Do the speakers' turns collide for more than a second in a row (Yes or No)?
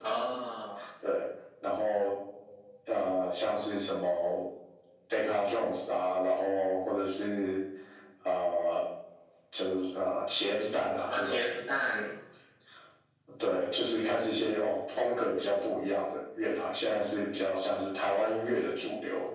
No